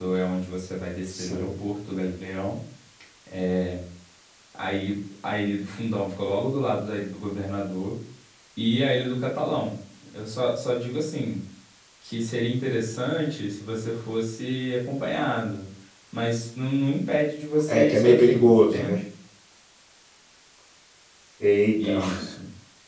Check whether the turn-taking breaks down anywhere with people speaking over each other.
Yes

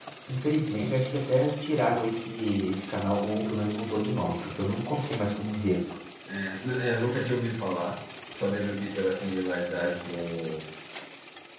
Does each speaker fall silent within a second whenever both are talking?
Yes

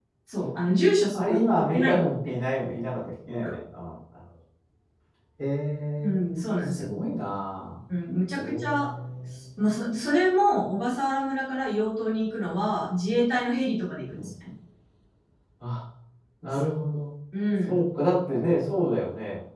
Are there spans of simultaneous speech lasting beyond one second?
Yes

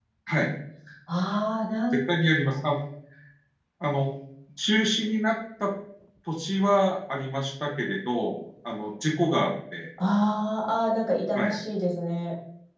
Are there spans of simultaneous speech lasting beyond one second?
No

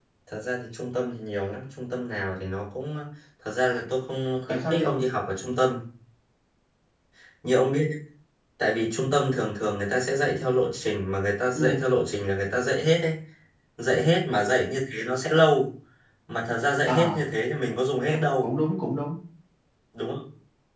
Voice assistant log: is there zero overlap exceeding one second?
Yes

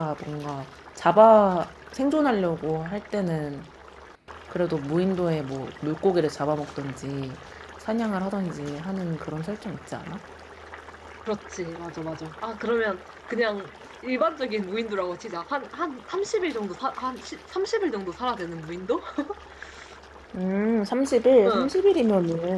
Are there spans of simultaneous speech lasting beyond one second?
No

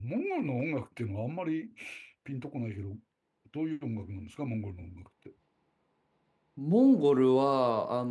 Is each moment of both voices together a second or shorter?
Yes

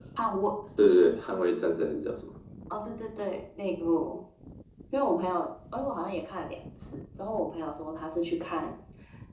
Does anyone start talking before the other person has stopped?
No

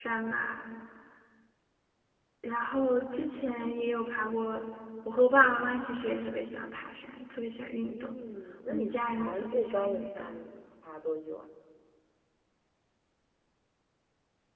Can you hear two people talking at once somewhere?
Yes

